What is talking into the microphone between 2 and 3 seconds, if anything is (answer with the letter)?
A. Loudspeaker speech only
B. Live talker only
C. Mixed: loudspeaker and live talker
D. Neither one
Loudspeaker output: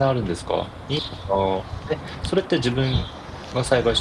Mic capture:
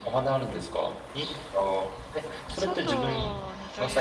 C